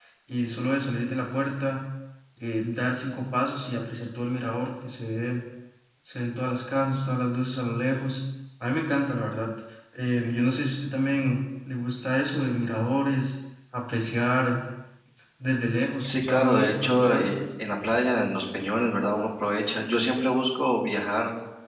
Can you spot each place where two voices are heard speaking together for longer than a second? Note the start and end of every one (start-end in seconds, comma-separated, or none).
16.0-17.4